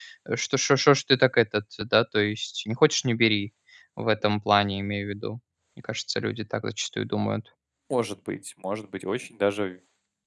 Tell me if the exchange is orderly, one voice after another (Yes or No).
Yes